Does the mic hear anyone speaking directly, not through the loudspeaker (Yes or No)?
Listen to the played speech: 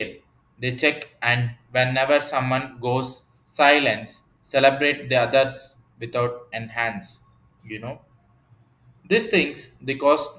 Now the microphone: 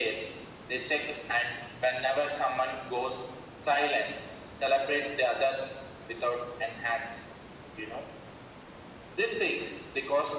No